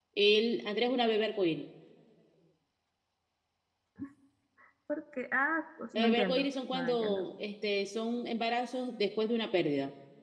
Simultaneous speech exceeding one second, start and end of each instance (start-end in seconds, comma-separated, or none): 6.0-7.2